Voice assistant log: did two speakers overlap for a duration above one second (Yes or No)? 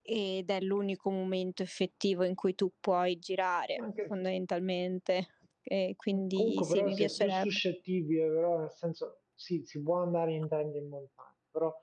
Yes